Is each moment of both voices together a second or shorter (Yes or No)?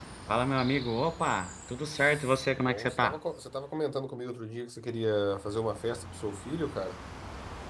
No